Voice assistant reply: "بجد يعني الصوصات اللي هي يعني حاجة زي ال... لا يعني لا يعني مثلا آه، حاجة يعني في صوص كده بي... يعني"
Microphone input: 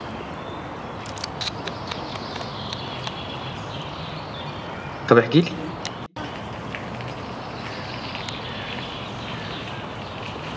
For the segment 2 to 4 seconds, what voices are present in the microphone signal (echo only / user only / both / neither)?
neither